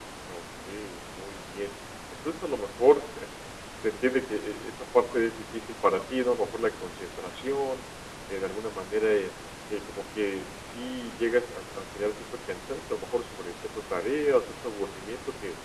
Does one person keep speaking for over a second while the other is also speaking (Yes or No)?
No